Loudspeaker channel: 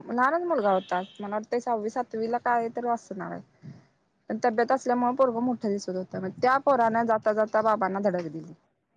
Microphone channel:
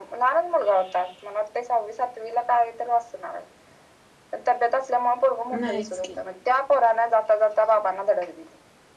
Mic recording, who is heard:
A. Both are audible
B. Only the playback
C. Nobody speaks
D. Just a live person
A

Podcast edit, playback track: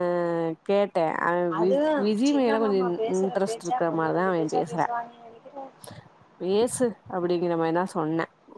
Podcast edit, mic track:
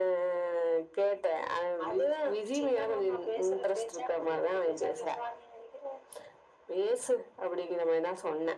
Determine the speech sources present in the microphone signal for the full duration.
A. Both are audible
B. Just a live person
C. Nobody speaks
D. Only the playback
D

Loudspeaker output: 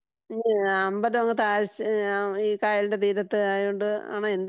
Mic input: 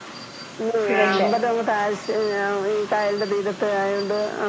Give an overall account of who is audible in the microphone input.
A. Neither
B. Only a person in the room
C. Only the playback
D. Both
D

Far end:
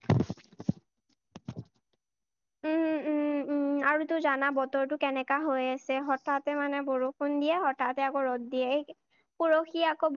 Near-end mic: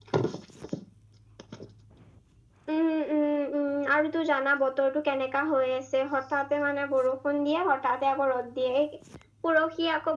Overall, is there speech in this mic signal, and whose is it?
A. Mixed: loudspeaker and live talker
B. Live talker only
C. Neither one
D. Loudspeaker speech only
D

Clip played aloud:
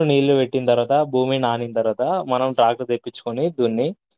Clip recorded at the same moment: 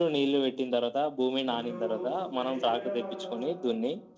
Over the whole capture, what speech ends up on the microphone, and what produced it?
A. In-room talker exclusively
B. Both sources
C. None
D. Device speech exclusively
B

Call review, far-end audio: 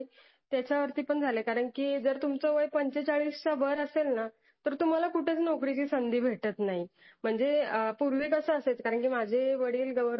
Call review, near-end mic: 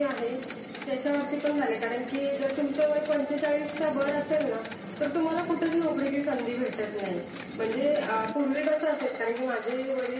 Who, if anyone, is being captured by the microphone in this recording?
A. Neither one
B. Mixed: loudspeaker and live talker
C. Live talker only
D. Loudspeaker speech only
D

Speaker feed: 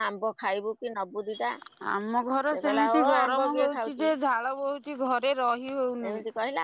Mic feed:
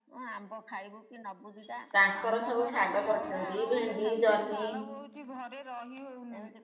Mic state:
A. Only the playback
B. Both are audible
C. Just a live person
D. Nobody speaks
B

